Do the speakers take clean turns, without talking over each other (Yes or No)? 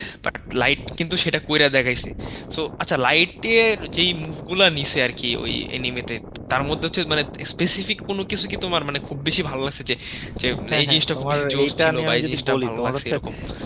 No